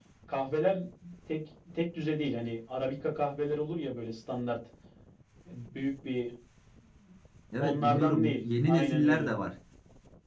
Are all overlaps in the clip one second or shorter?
No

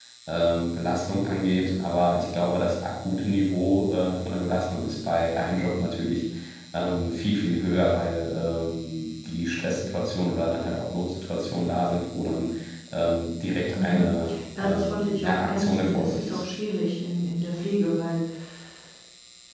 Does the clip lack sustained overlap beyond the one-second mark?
No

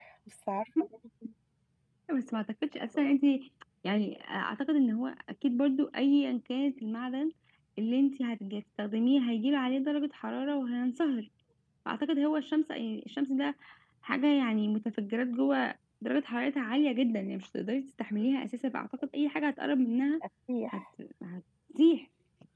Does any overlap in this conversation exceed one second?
No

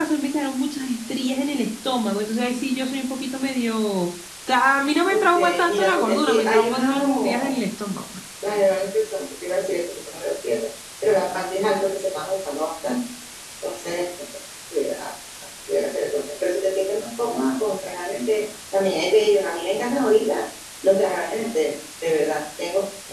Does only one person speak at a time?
No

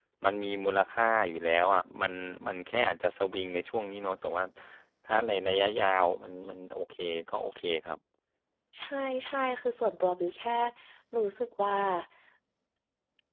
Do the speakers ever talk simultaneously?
No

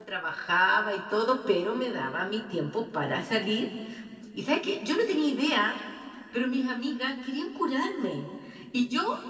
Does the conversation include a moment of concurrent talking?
No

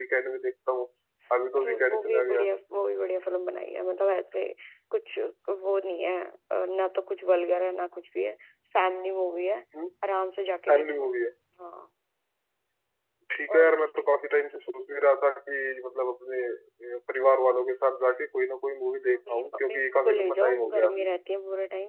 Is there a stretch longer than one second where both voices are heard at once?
Yes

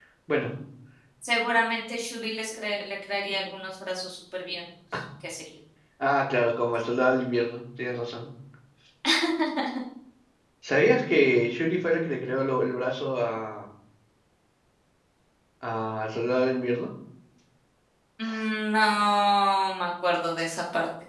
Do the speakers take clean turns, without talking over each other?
Yes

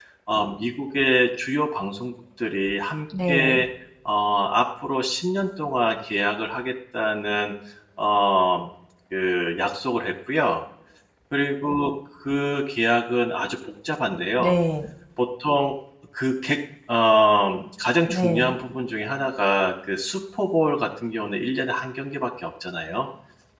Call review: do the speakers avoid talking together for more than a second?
Yes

